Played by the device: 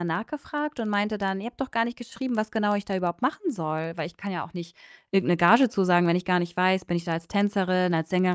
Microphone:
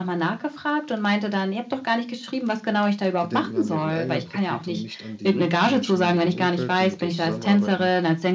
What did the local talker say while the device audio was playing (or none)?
Die denken an deren eigenen Profit und nicht an die Menschen in deren Umfeld, die mit denen zusammenarbeiten.